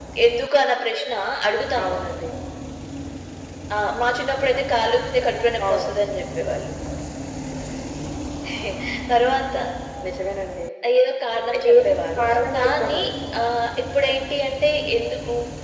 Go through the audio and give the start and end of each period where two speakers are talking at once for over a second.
11.7-13.0

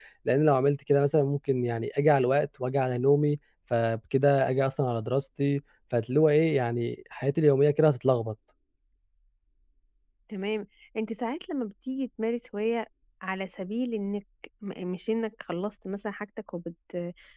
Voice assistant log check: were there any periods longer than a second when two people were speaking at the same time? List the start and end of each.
none

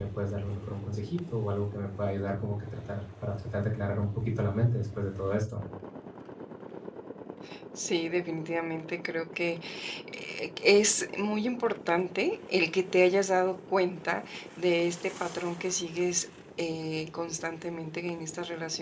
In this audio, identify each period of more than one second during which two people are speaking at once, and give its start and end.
none

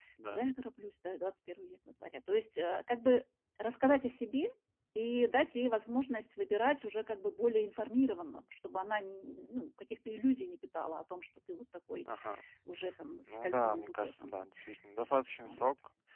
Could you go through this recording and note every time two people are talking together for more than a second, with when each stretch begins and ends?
13.2-14.4

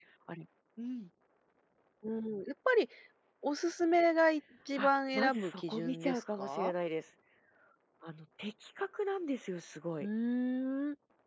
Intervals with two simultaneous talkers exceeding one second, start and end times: 4.8-6.7

